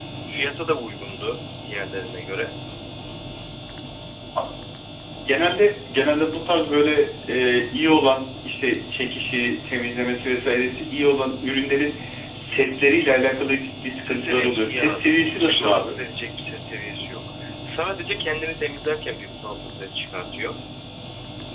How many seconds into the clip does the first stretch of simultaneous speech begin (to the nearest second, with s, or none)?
14 s